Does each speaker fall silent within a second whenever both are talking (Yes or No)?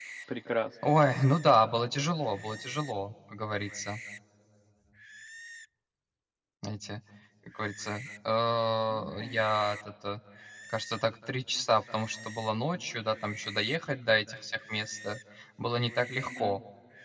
Yes